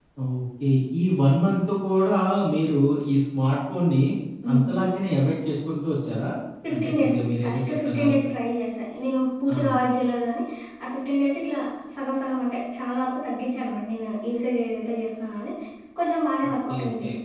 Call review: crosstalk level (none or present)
present